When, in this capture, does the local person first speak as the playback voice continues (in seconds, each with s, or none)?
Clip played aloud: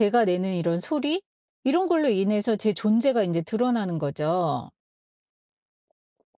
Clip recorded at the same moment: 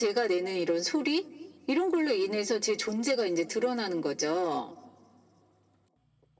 none